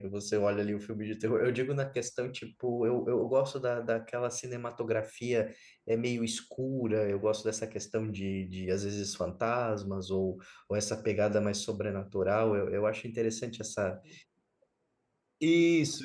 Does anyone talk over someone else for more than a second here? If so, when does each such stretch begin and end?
none

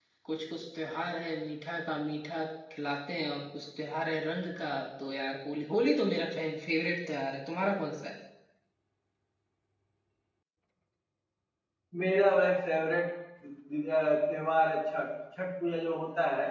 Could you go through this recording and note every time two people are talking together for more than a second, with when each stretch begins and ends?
none

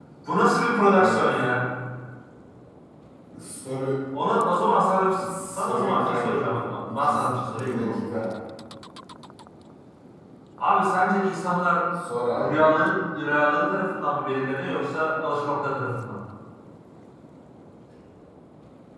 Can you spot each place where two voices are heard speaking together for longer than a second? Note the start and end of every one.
5.5-8.3

